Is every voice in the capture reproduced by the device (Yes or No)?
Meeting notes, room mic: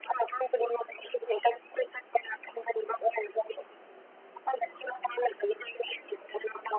Yes